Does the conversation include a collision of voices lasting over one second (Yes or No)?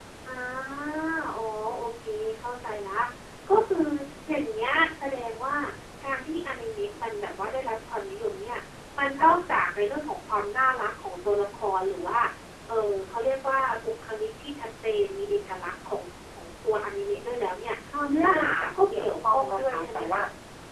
Yes